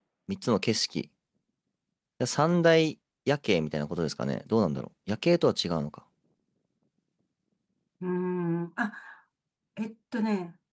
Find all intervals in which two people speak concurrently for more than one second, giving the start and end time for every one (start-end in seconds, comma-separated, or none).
none